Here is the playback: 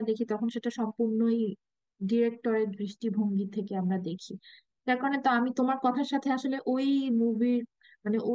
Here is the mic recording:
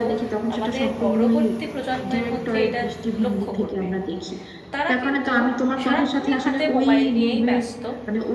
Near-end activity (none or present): present